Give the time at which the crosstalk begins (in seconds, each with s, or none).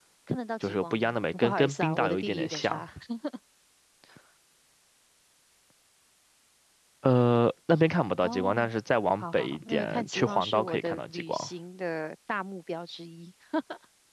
0.6 s